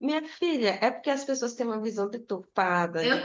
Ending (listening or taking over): listening